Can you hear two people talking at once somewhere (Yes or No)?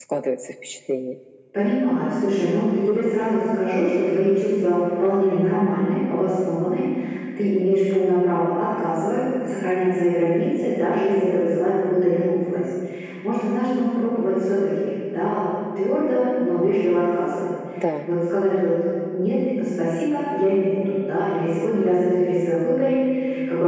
No